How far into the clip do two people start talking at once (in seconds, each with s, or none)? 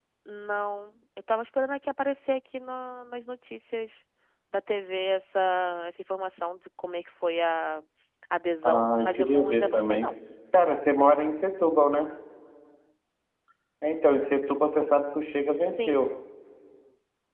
8.6 s